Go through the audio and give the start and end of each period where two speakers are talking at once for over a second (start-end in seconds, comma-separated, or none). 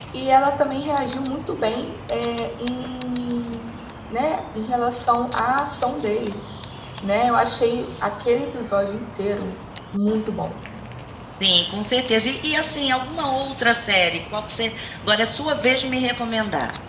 none